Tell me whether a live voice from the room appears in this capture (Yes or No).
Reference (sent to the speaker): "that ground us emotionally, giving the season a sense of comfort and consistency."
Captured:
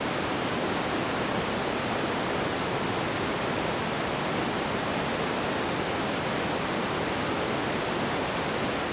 No